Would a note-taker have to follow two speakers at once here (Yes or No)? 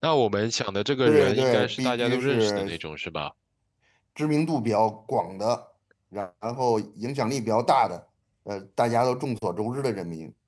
Yes